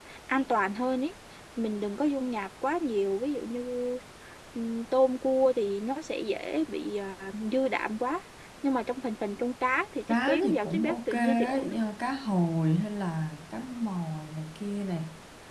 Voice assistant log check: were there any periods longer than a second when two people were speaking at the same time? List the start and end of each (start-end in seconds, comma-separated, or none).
10.3-11.7